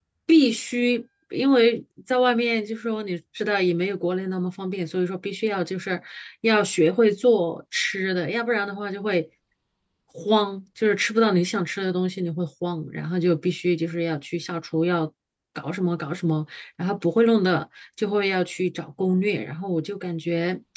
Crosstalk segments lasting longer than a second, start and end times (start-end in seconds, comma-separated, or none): none